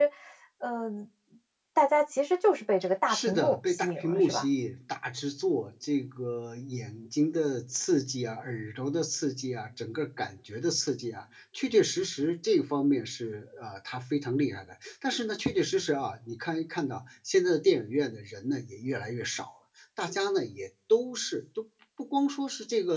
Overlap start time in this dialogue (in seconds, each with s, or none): 3.1 s